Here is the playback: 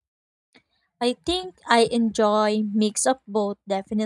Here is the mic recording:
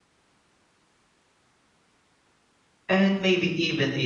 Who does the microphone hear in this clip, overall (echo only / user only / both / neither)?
user only